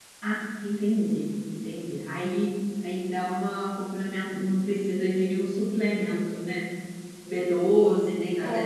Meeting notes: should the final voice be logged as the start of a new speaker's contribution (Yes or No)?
Yes